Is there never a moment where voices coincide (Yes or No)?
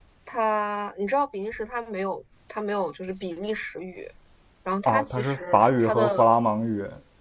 No